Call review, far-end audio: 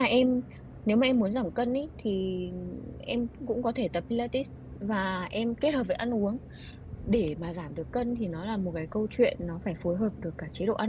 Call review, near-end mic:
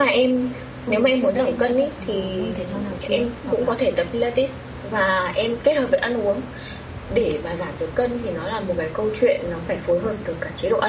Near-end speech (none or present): present